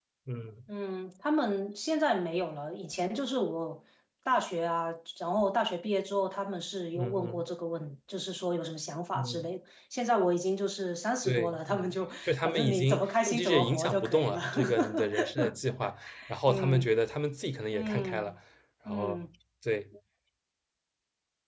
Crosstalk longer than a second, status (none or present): present